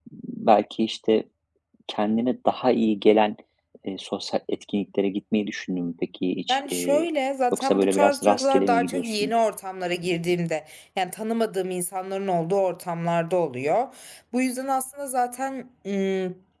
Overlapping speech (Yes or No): Yes